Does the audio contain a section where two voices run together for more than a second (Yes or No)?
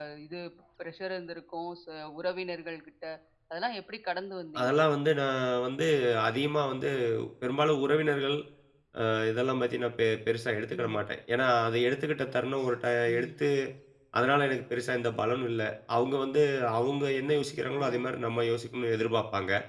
No